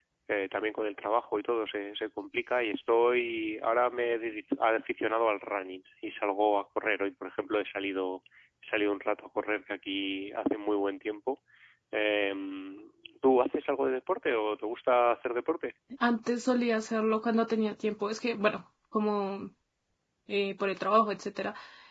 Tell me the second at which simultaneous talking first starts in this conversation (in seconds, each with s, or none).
none